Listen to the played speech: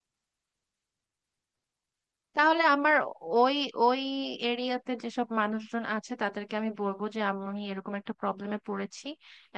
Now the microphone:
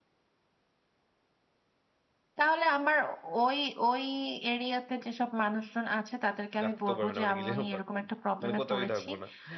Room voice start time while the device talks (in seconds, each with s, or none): 6.6 s